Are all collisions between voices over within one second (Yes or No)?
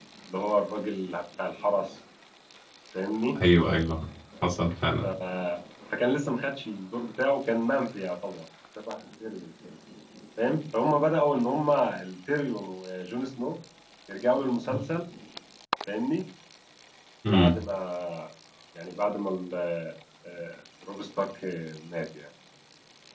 Yes